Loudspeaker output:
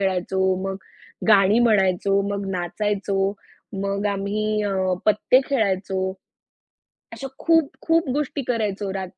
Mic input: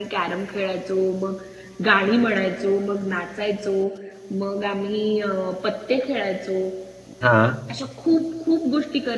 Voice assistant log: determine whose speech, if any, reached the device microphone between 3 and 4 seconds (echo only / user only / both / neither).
echo only